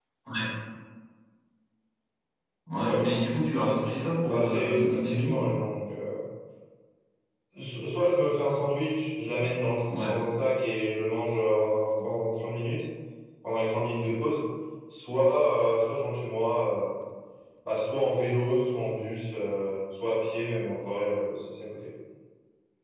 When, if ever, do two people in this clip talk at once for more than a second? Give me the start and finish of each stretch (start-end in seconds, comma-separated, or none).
4.3-5.5